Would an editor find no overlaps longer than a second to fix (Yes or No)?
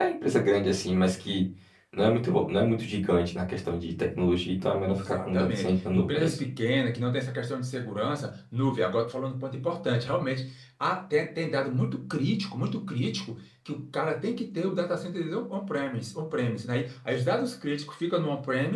No